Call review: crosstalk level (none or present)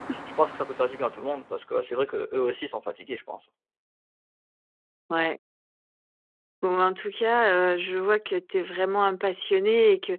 none